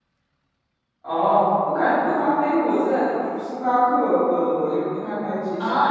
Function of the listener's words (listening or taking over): taking over